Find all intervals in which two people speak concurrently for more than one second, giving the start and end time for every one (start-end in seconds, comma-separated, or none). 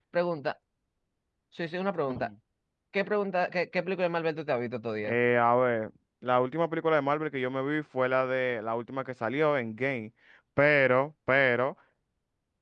none